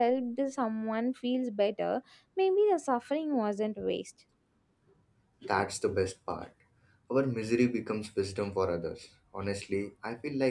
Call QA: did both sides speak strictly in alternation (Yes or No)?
Yes